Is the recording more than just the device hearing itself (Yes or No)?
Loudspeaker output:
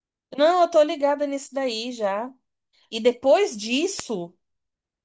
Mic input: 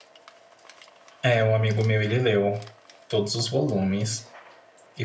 Yes